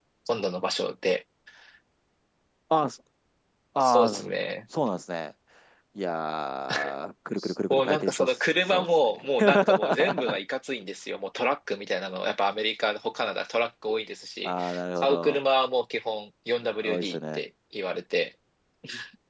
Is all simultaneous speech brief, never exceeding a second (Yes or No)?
No